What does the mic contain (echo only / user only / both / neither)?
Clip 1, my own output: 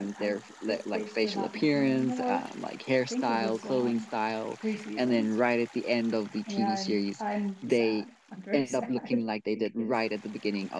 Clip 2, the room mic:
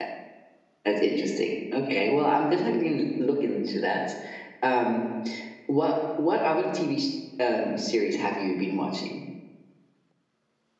user only